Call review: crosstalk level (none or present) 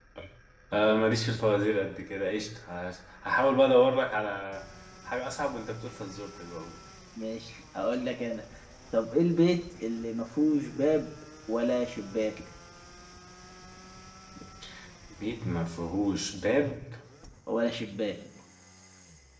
none